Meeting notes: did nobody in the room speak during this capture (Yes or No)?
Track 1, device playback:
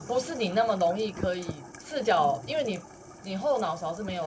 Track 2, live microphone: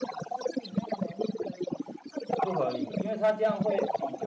No